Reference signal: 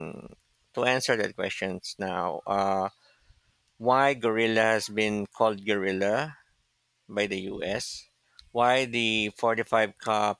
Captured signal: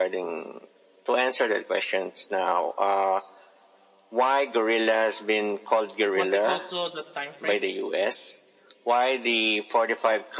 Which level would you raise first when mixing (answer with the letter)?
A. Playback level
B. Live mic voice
B